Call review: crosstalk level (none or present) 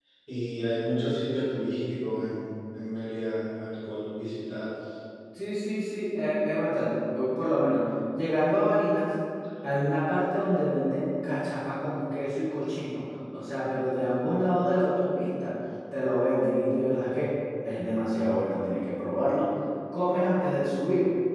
none